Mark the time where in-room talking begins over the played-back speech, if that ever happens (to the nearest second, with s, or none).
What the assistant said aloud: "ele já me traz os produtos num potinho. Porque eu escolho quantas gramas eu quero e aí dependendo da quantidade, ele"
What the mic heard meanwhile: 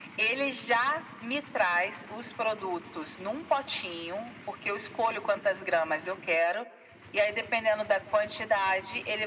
none